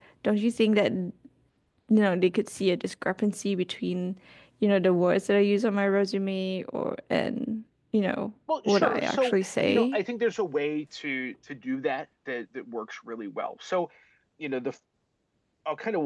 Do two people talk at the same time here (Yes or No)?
Yes